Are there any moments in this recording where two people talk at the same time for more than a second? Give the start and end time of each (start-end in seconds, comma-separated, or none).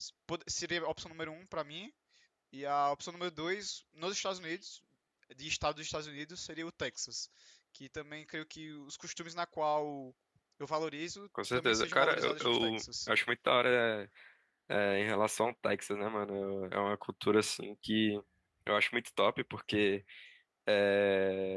11.5-13.1